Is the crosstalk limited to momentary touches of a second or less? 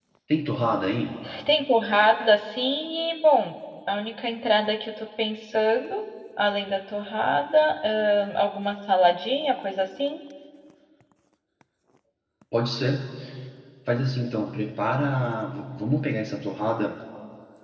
Yes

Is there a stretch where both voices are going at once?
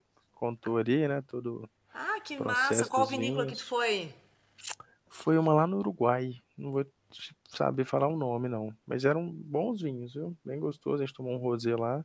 Yes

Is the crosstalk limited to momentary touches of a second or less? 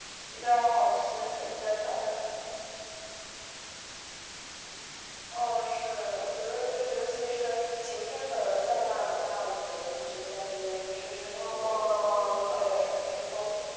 No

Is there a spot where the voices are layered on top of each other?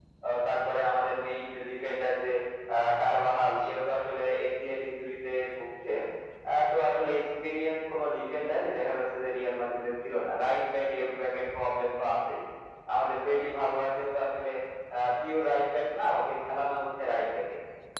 No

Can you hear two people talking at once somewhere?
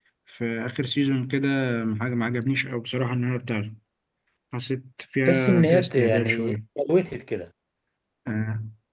Yes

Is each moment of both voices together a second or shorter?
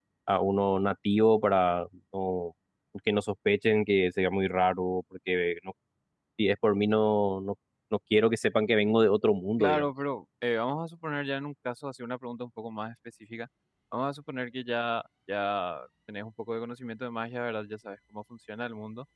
Yes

